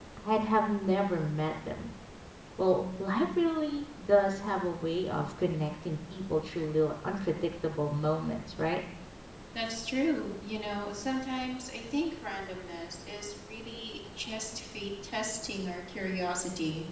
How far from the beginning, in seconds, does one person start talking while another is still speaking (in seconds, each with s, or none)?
none